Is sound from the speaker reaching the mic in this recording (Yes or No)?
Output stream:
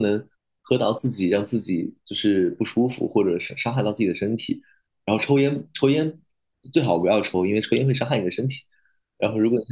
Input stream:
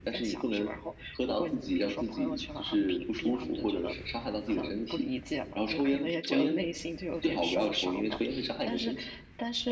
Yes